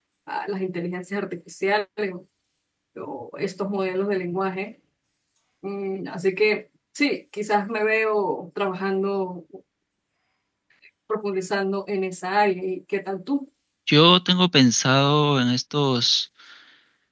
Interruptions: none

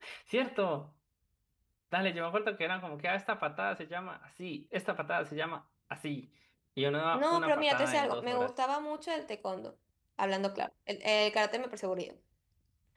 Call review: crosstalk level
present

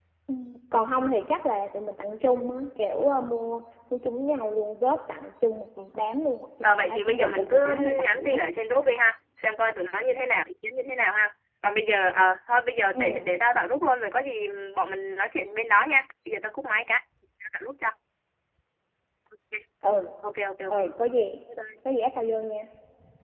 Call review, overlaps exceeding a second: present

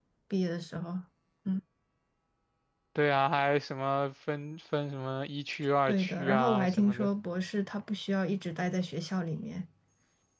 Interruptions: present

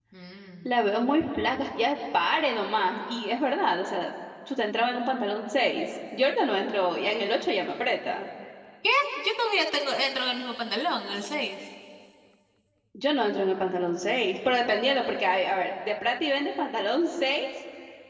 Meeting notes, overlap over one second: none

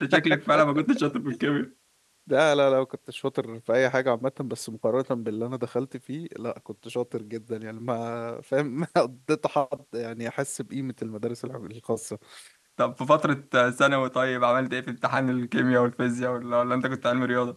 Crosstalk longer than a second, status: none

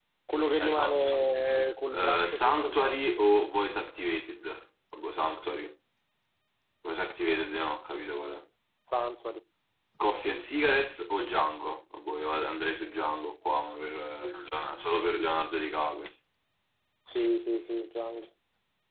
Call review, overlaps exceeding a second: present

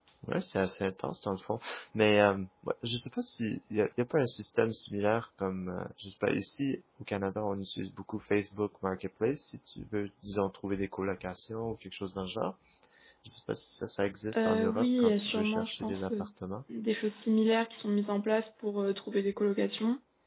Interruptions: present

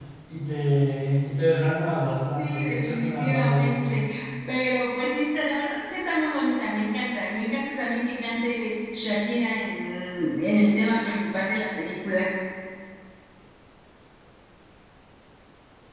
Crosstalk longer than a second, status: present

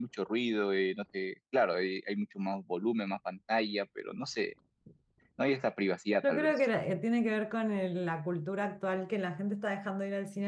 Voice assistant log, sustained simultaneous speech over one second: none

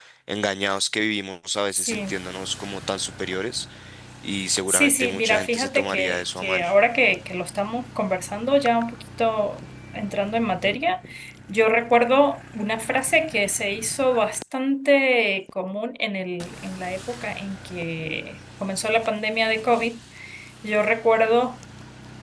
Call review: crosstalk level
present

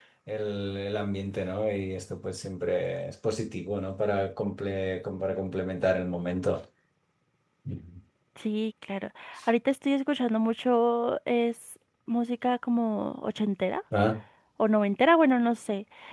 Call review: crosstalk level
none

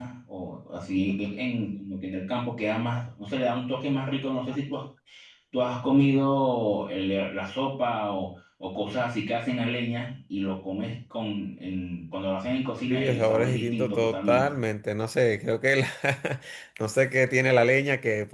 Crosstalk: present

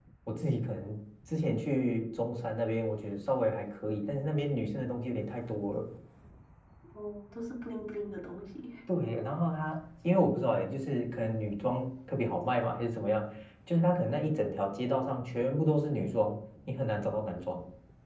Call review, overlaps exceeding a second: none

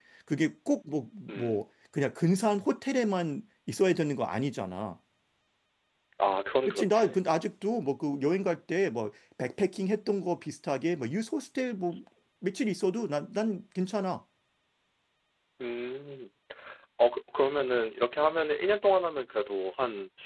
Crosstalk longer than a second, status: none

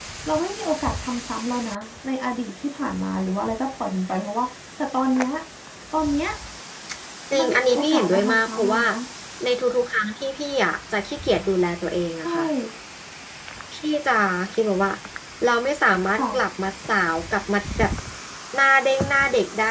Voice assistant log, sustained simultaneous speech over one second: present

